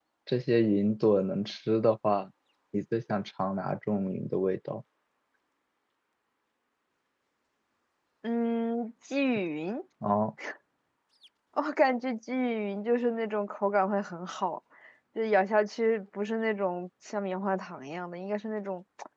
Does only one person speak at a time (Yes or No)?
Yes